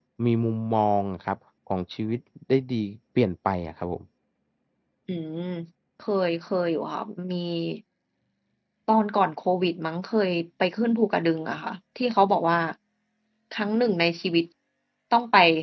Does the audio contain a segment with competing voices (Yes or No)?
No